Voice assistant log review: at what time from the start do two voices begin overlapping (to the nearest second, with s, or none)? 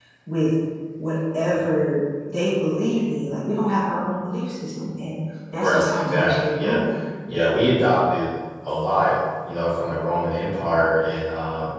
6 s